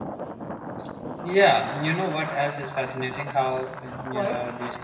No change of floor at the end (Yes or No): Yes